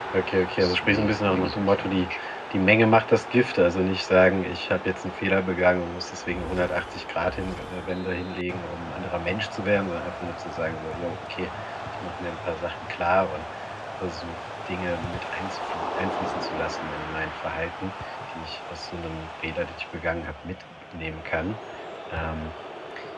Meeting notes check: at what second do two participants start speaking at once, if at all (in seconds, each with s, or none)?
0.5 s